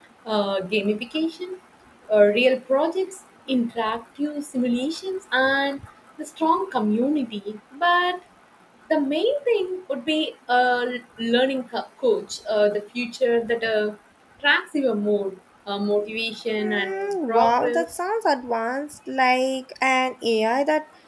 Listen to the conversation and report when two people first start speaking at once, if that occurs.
17 s

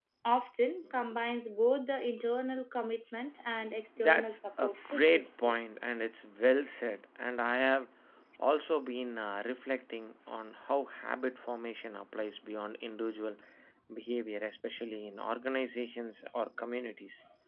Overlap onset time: 4 s

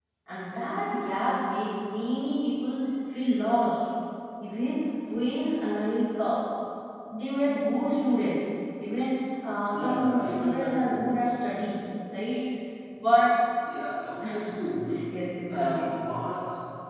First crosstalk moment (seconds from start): 10 s

